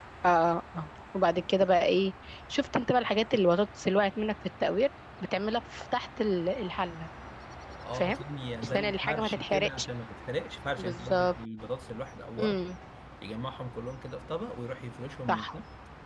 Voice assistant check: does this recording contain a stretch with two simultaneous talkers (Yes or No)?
Yes